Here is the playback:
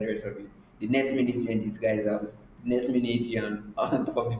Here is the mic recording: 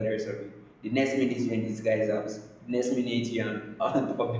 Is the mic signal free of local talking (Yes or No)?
Yes